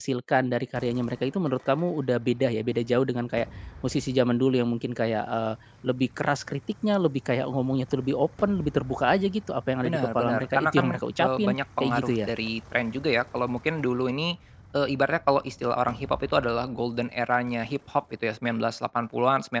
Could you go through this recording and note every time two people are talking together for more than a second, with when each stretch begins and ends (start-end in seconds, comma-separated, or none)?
9.8-12.3